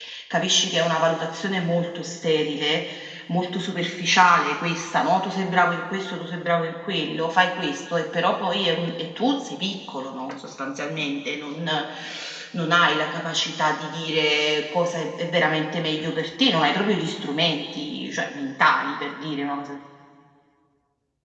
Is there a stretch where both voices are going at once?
No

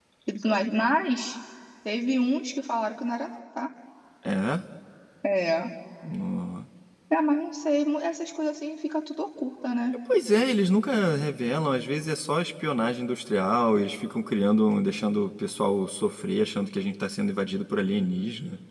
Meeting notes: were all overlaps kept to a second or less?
Yes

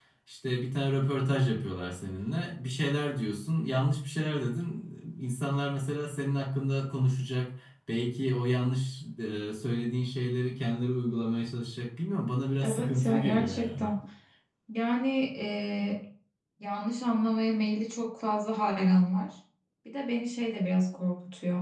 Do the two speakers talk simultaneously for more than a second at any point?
Yes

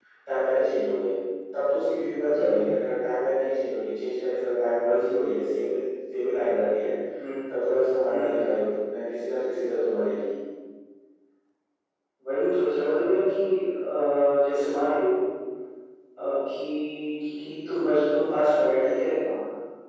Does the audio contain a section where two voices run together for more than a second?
No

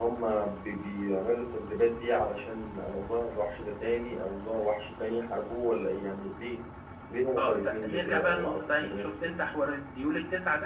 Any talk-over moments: Yes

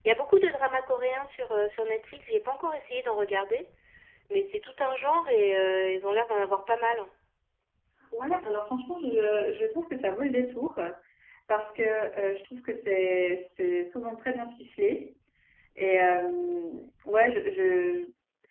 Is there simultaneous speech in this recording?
No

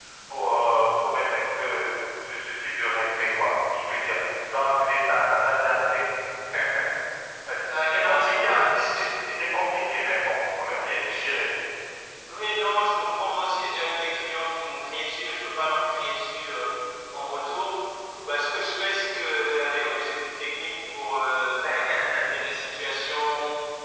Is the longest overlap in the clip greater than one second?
Yes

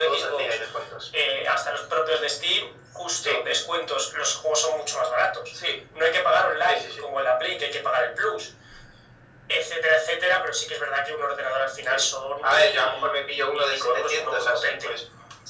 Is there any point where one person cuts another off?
Yes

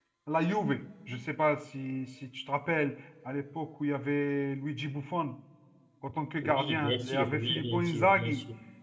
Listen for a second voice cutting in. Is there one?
Yes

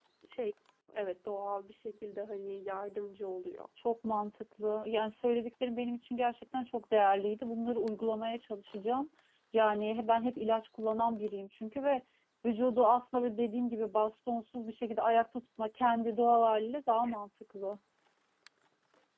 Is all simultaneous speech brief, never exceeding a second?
Yes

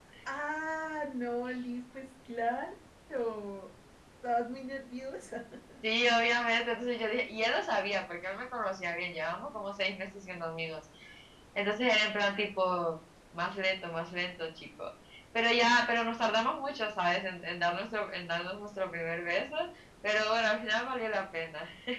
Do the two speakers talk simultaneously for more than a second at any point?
No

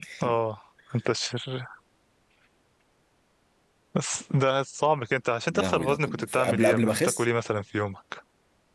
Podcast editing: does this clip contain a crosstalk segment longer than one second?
Yes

